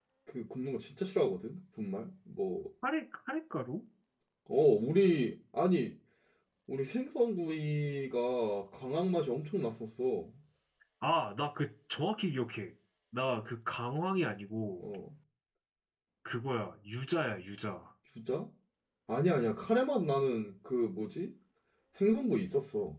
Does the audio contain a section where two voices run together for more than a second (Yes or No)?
No